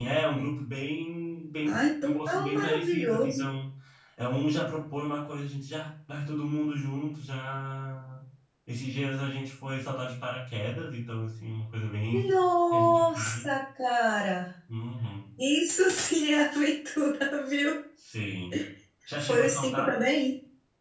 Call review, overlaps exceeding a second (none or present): present